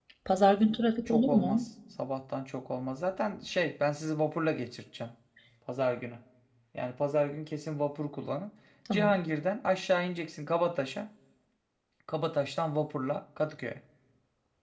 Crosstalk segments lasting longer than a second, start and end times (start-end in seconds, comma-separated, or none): none